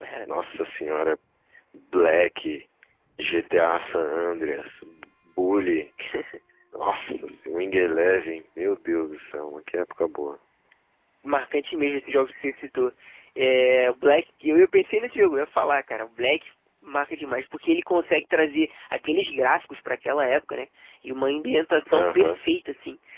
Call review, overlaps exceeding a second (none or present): none